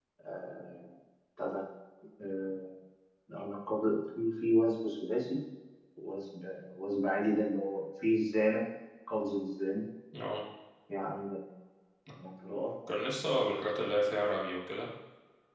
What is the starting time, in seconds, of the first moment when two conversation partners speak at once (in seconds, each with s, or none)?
none